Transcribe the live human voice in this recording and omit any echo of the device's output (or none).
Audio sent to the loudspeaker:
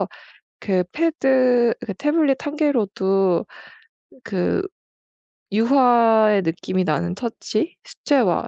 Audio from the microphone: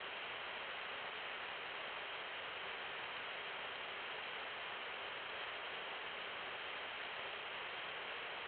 none